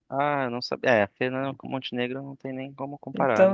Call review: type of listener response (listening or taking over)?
taking over